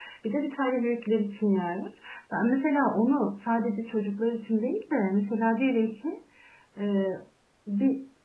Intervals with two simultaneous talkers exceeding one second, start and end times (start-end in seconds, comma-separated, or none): none